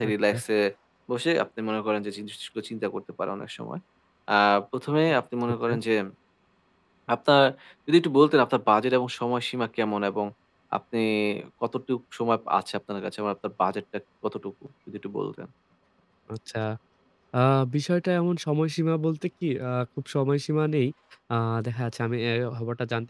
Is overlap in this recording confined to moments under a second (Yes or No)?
Yes